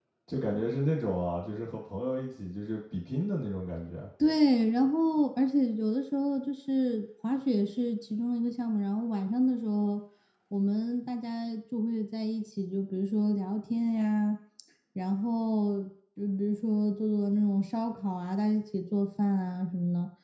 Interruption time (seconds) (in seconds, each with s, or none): none